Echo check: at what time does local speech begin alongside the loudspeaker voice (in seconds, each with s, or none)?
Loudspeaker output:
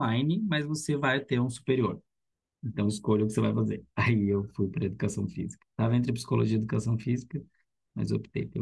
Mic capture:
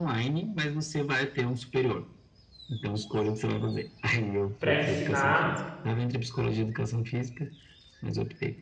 4.6 s